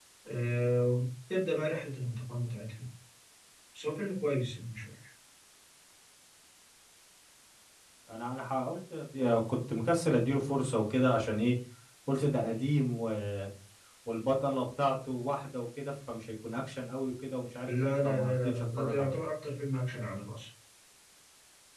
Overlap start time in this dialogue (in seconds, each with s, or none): 17.6 s